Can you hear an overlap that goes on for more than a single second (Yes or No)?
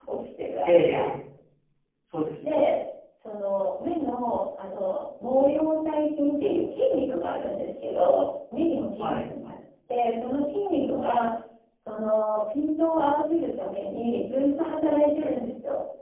No